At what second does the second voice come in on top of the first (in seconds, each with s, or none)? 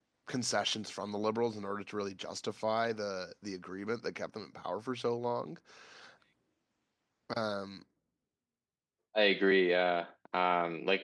none